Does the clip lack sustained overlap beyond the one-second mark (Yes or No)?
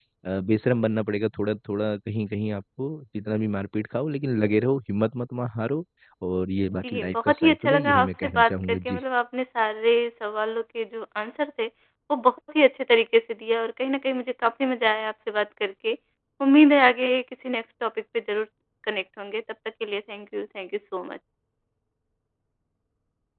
No